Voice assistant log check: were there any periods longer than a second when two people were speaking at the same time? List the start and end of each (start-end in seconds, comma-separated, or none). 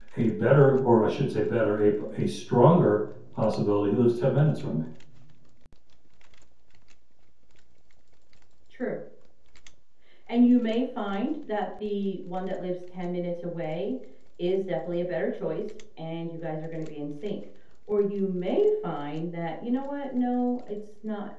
none